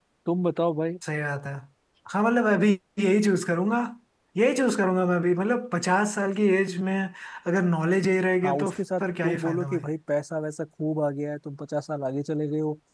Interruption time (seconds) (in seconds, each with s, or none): 8.4 s